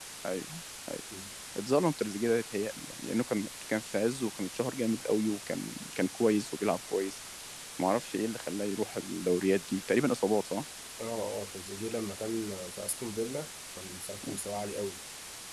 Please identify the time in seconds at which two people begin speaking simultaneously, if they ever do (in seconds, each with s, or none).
none